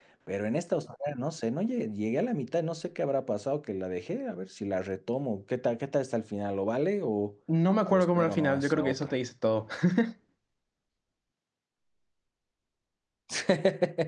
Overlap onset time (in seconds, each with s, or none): 7.9 s